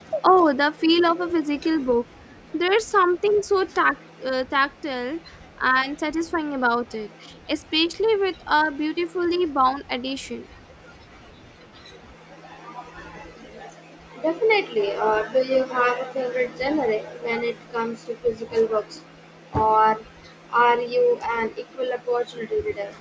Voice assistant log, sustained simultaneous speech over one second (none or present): none